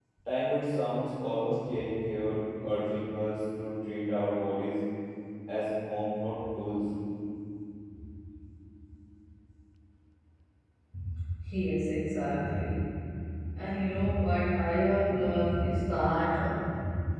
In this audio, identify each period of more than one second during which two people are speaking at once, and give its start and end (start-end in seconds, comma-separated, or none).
none